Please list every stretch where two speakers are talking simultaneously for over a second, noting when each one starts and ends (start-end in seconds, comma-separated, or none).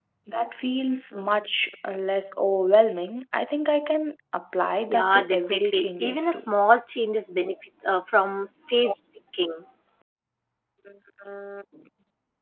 4.9-6.4